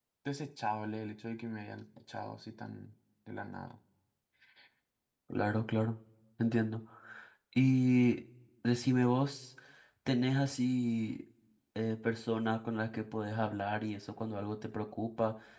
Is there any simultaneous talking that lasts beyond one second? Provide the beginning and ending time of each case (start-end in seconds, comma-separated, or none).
none